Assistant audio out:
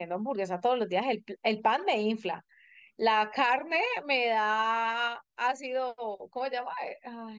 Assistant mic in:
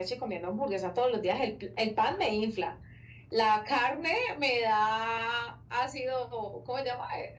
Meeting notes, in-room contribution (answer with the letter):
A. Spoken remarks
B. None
B